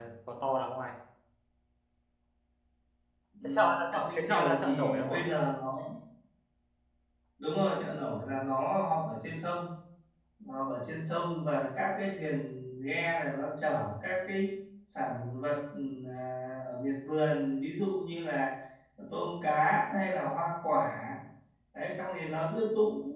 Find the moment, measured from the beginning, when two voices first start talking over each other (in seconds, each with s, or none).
3.6 s